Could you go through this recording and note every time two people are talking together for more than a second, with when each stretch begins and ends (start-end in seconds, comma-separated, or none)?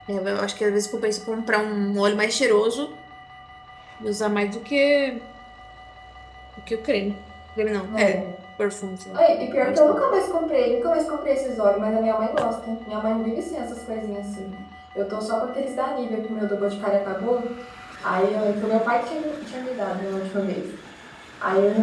none